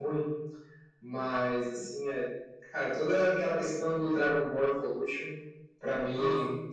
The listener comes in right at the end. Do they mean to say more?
No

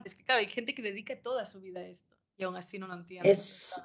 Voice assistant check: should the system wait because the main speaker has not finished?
No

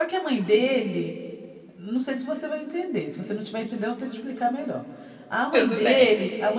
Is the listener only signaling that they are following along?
Yes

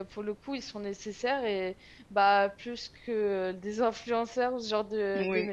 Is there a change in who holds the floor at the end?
Yes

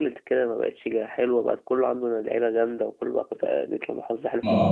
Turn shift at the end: Yes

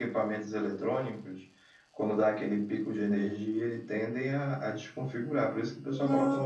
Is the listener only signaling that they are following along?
No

